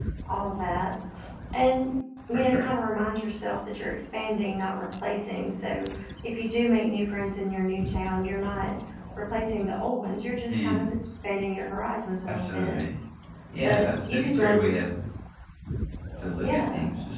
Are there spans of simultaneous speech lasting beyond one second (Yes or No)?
Yes